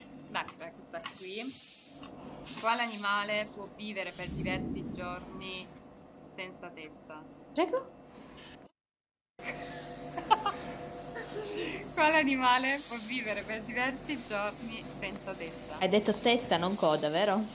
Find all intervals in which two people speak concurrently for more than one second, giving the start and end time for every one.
none

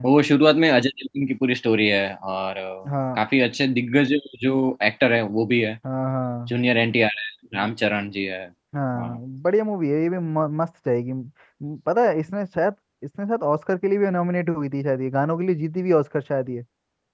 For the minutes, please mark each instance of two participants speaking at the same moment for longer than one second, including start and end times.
none

